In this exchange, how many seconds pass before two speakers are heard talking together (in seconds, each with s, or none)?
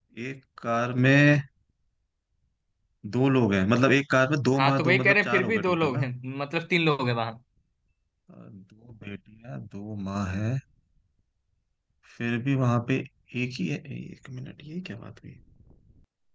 4.6 s